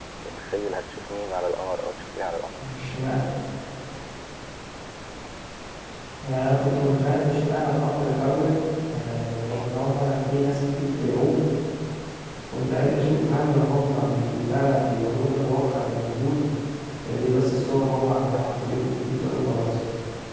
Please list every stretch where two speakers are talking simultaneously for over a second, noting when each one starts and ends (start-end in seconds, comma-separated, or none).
none